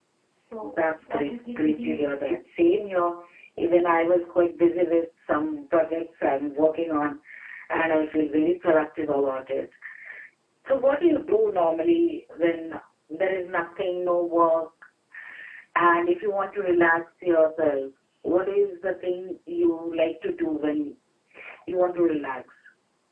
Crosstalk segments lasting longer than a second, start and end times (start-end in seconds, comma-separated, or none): 0.6-2.4